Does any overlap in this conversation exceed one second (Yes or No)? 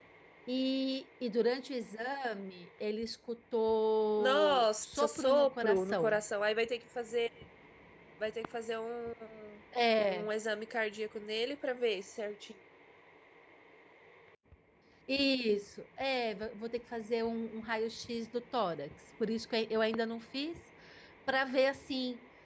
Yes